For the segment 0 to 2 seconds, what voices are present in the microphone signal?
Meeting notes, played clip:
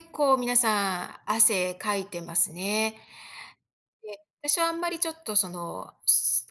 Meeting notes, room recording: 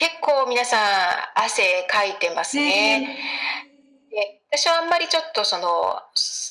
echo only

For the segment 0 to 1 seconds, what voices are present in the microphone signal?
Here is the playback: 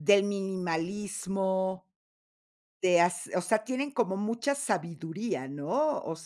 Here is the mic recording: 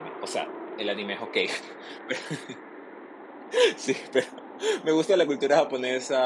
user only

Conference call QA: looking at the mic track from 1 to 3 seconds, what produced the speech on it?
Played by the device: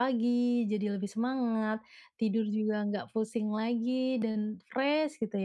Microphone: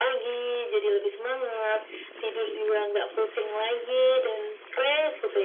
echo only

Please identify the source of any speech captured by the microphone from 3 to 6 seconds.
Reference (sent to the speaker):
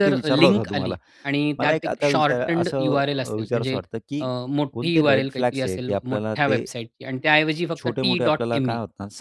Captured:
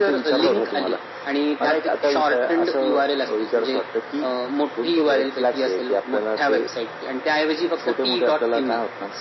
echo only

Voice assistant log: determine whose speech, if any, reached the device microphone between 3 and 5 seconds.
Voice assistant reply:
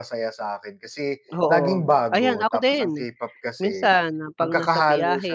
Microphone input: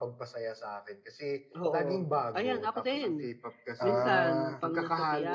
both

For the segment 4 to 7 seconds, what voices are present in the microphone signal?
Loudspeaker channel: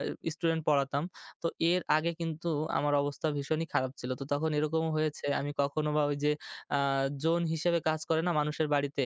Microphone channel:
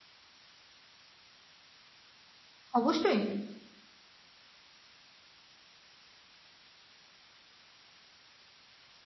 neither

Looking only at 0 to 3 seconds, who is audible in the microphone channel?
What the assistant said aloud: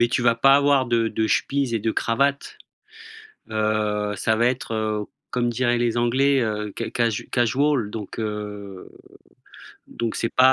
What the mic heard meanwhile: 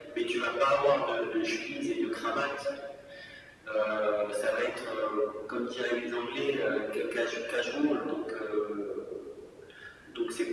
echo only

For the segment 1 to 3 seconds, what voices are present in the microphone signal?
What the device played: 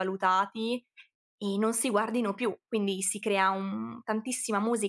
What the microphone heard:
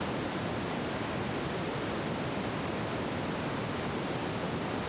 neither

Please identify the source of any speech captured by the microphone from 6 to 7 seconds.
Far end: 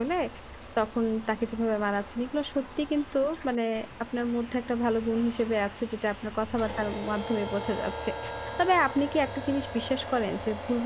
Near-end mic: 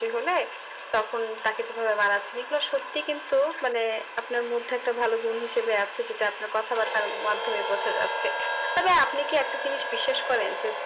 echo only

